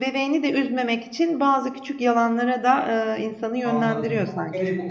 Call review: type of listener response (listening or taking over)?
taking over